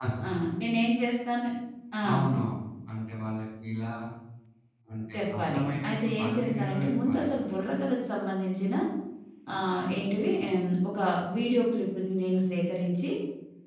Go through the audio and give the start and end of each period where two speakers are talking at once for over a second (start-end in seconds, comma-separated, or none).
5.1-7.4